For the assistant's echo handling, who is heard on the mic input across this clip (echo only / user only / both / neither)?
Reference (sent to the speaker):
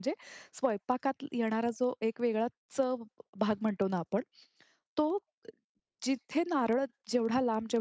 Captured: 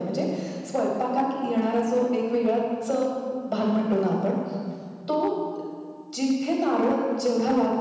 echo only